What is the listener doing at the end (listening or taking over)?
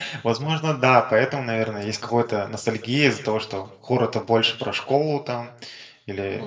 listening